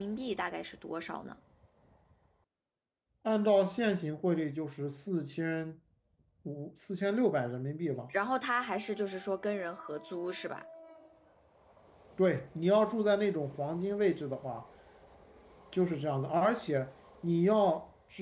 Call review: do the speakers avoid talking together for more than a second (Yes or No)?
Yes